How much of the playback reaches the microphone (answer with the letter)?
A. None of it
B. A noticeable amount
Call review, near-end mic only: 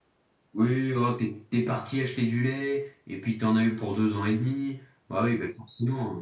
B